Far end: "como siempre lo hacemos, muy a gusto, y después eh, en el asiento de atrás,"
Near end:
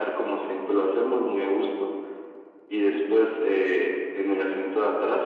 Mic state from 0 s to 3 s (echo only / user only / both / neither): echo only